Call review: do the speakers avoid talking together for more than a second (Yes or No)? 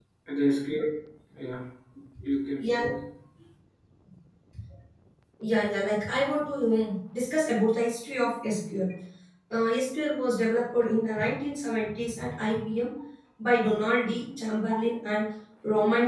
Yes